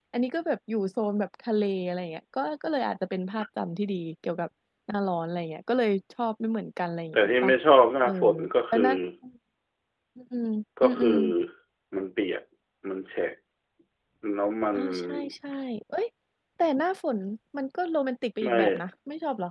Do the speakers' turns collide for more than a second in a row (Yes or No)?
No